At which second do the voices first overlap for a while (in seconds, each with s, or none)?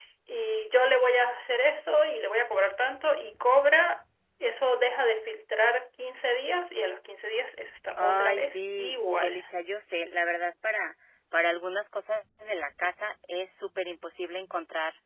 8.0 s